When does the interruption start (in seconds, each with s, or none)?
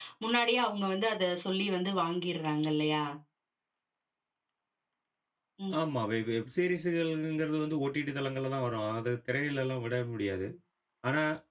none